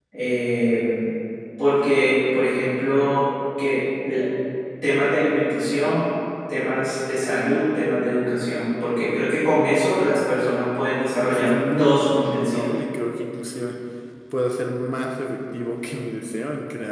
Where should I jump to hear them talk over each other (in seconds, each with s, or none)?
11.2 s